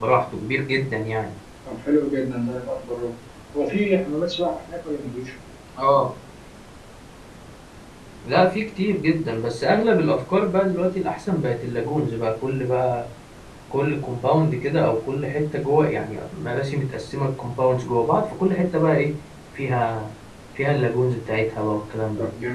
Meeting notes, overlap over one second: none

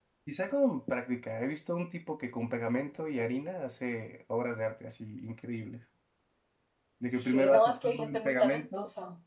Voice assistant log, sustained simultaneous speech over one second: present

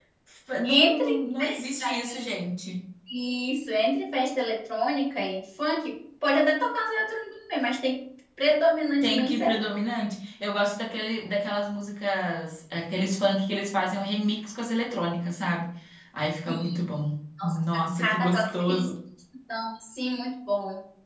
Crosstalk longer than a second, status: present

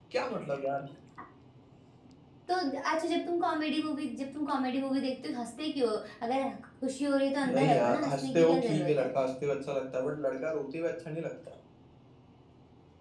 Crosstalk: present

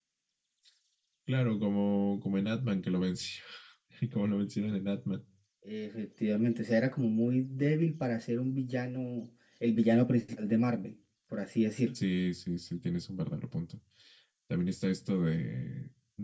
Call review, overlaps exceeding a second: none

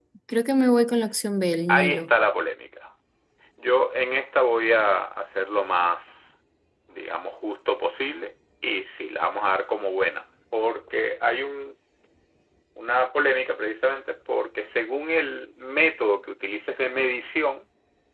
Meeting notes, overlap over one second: none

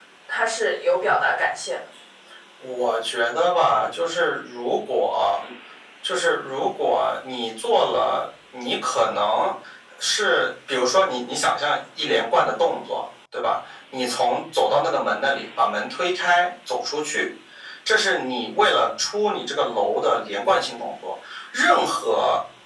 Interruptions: none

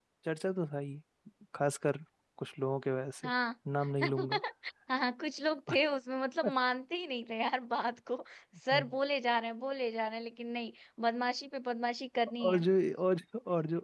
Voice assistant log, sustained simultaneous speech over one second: none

